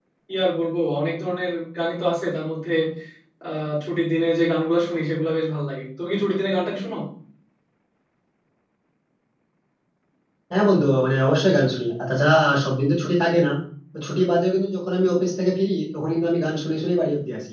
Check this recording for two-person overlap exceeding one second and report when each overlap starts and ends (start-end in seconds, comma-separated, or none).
none